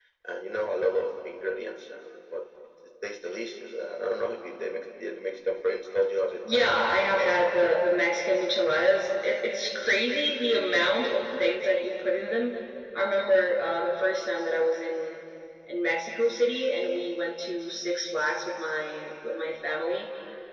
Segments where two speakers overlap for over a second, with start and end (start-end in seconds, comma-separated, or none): 6.5-7.7